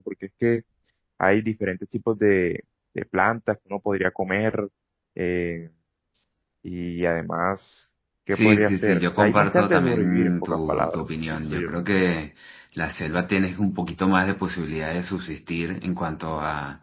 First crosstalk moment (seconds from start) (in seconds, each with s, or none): 8.3 s